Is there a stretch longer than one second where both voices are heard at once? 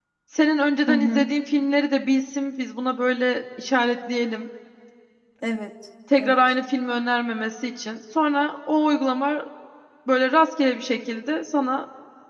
No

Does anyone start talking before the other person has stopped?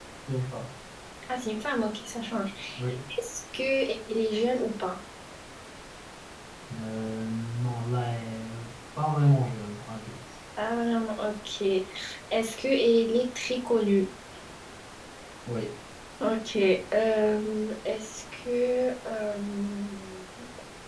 No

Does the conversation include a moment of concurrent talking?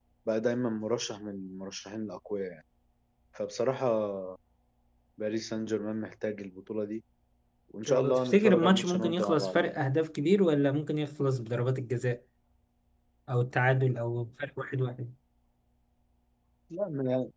Yes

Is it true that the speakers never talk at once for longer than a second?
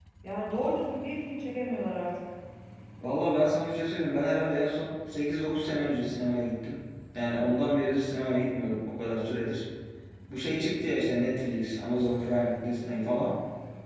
Yes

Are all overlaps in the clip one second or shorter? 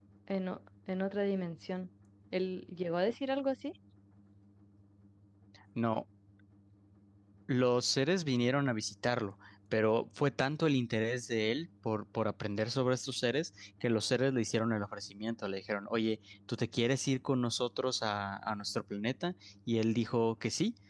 Yes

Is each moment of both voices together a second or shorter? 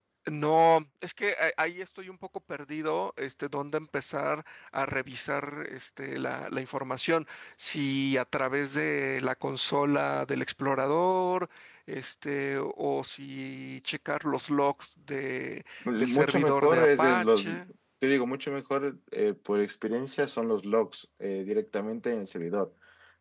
No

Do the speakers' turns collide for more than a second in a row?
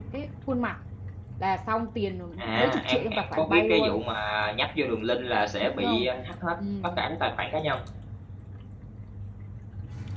Yes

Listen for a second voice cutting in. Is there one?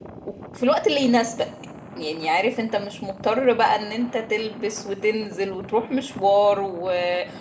No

